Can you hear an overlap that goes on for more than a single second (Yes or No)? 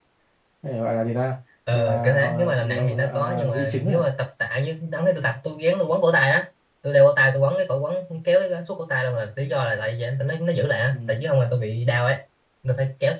Yes